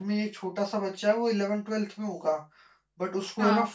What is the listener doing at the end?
listening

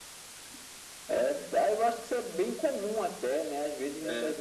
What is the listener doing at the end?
listening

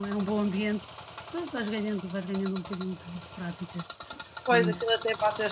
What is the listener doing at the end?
taking over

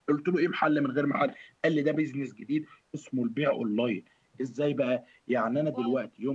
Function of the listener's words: listening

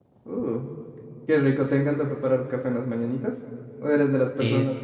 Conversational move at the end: listening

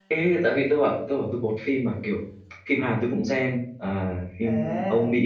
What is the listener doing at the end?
taking over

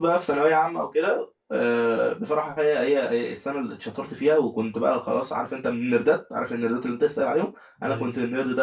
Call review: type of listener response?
listening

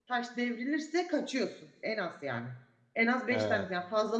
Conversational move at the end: listening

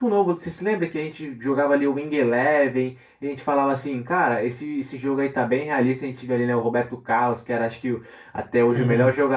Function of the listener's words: listening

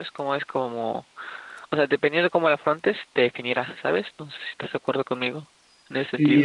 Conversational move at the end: taking over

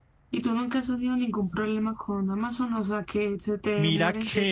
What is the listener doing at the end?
taking over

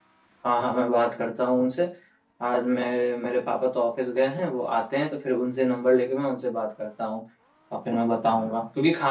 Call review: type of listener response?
listening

